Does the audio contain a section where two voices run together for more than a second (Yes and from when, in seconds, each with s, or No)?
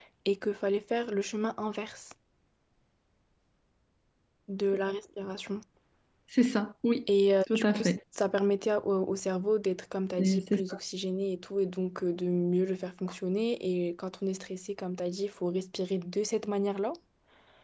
No